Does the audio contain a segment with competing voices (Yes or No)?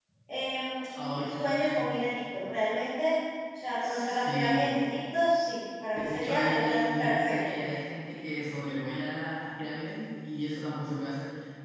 Yes